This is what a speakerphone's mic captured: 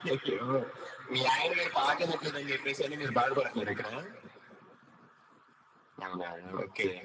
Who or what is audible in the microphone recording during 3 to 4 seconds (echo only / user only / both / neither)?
echo only